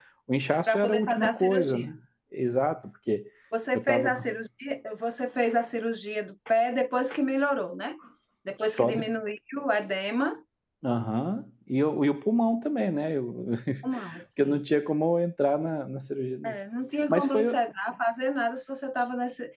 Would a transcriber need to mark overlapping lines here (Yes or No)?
Yes